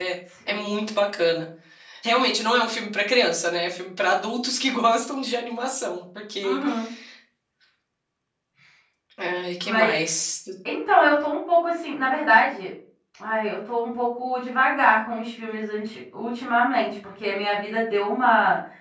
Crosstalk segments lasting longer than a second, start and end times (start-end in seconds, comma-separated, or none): none